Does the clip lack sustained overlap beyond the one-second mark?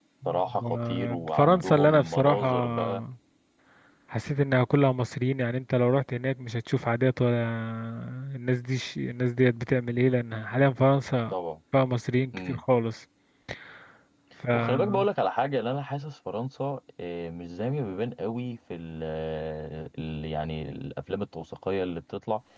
No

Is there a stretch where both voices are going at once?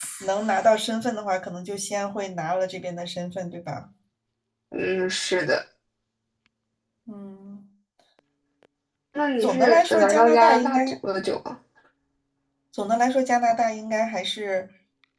Yes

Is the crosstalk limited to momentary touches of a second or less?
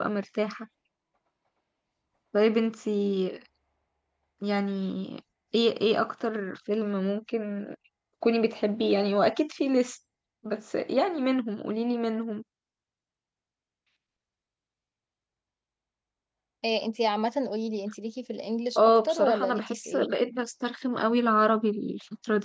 No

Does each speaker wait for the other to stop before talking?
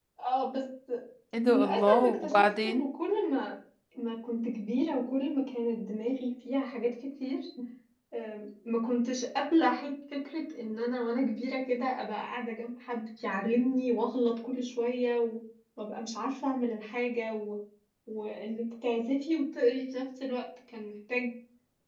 No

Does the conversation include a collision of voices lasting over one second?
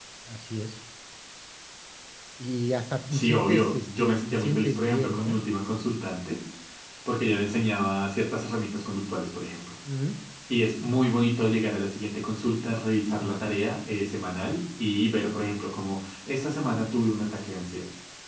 Yes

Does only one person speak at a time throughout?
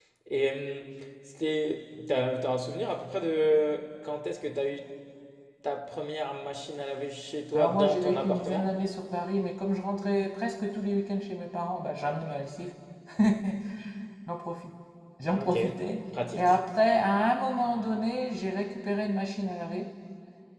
No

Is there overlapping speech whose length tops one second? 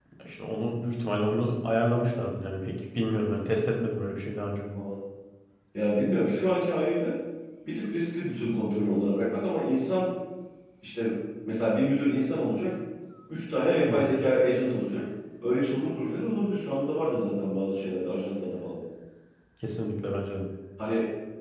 No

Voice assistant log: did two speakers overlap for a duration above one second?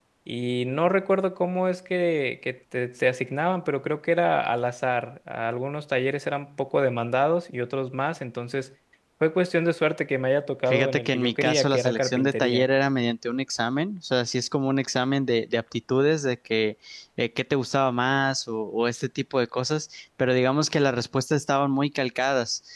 Yes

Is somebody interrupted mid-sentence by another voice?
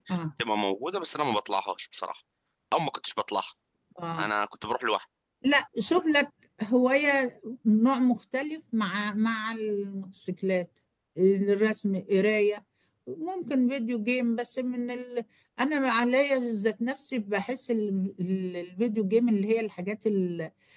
No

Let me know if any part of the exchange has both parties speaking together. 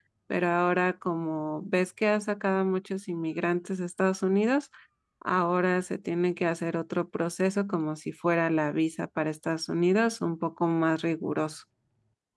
No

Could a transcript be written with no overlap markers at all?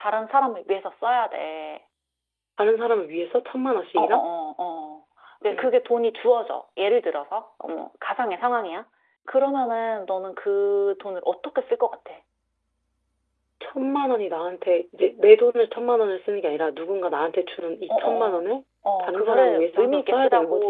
No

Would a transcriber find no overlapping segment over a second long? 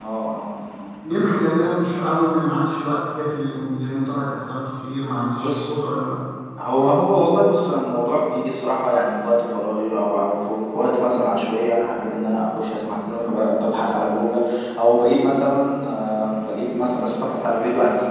Yes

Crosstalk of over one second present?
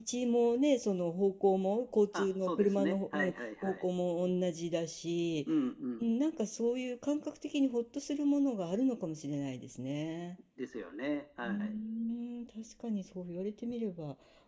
Yes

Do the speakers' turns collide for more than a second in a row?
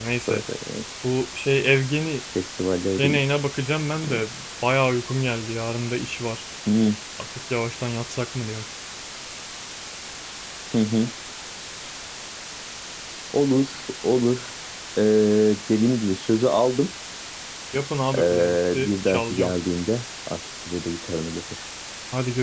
Yes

